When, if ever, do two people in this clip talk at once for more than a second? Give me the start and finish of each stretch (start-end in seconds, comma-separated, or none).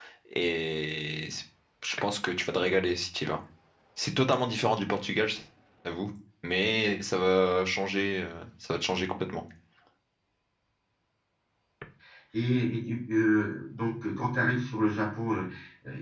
none